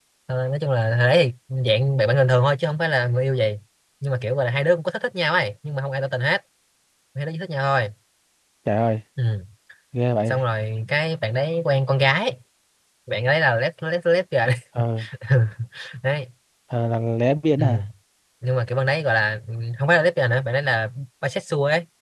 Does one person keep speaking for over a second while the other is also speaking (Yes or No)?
No